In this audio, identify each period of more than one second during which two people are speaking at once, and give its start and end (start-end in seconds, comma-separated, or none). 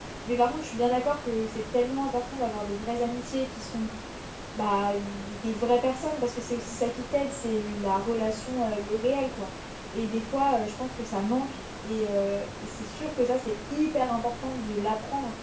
none